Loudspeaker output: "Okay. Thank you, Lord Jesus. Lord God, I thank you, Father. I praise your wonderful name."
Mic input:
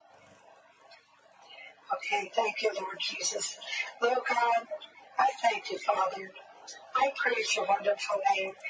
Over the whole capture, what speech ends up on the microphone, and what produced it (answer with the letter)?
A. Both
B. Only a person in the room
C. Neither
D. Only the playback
D